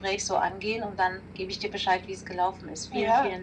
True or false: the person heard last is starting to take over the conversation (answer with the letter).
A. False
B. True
B